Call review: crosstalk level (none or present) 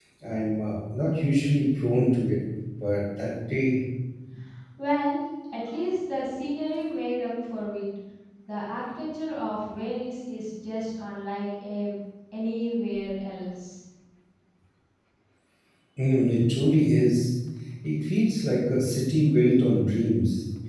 none